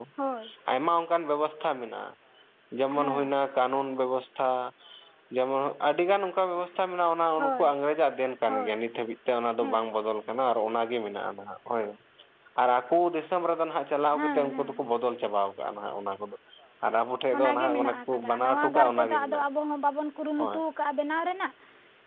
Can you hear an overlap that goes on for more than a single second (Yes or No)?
Yes